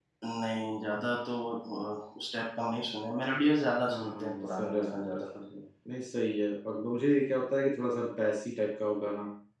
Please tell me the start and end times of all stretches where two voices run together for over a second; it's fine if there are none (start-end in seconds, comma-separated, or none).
3.9-5.2